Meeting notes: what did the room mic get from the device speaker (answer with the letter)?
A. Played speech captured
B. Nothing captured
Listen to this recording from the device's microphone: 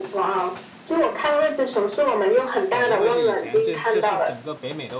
A